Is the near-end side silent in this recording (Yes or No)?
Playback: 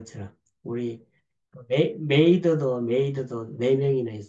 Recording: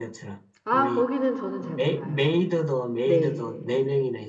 No